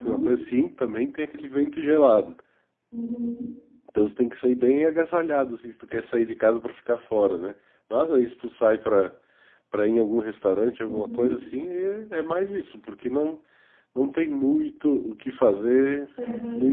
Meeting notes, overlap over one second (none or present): none